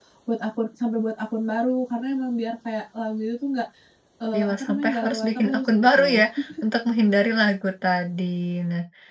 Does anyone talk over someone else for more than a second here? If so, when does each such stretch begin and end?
4.3-6.2

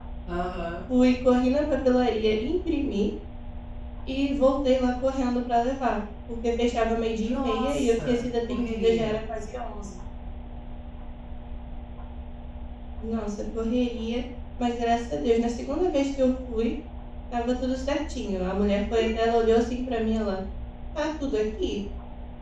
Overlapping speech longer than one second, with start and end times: 7.2-9.2

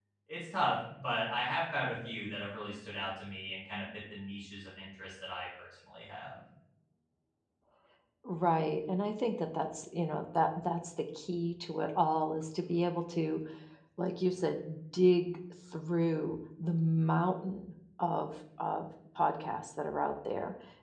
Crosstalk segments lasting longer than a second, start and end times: none

